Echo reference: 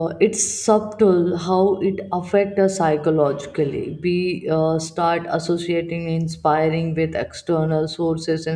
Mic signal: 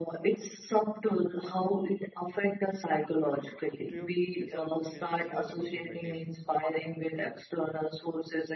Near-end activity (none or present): present